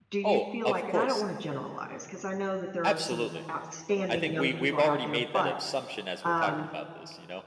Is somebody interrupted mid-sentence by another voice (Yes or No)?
Yes